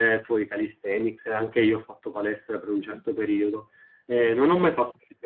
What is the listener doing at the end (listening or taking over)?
listening